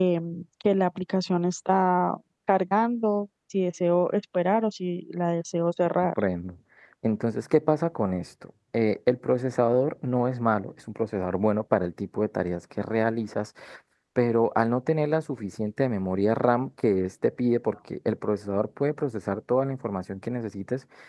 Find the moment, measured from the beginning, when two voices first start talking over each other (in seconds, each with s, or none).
none